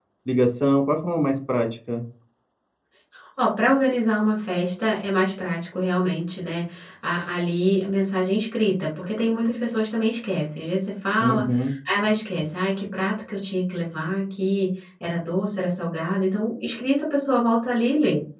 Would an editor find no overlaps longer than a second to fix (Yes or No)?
Yes